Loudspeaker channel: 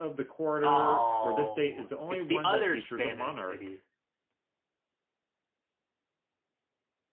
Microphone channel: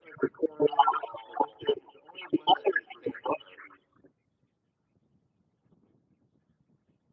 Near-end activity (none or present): none